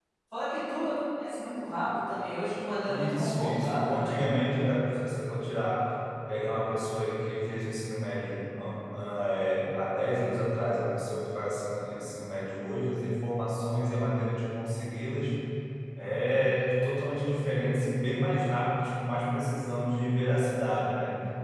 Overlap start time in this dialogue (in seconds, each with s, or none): 2.9 s